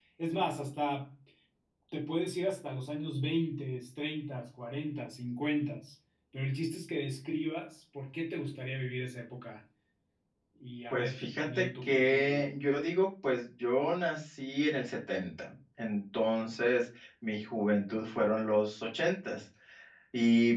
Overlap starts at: 11 s

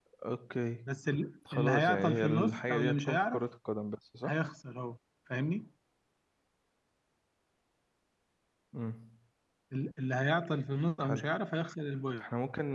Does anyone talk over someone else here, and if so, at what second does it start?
2 s

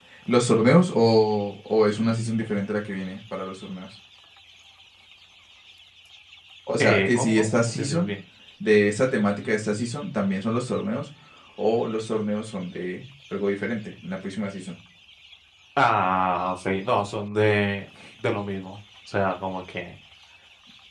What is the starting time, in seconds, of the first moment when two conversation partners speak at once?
7 s

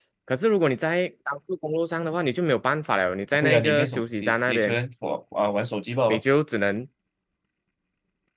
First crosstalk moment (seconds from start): 3 s

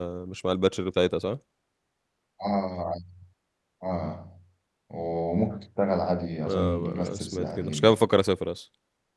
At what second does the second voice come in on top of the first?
6 s

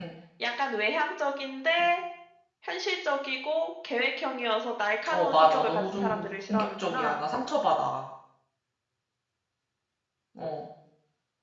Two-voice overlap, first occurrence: 5 s

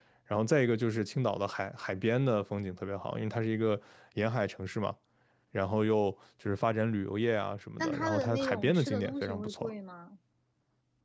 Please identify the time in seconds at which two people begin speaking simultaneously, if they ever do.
8 s

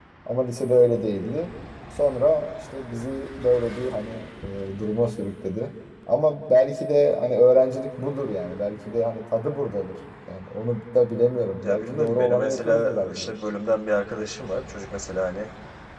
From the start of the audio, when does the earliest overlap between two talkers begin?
12 s

